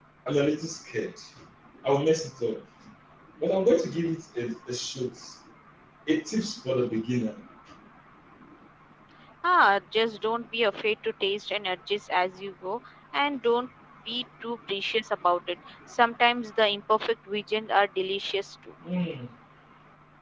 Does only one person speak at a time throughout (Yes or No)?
Yes